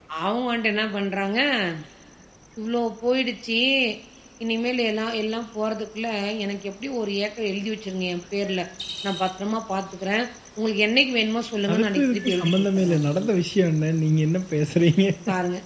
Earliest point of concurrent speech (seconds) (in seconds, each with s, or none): 11.7 s